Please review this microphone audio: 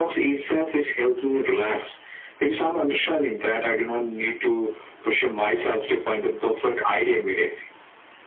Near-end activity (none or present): none